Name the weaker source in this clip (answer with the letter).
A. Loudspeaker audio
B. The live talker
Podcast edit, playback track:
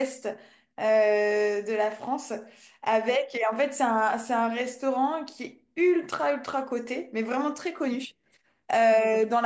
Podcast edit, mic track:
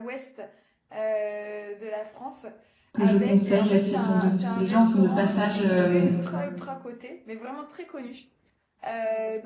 A